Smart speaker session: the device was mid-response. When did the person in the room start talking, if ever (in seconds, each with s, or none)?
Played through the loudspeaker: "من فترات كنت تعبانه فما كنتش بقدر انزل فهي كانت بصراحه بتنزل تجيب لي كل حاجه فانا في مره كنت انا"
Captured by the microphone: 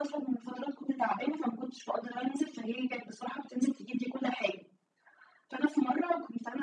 none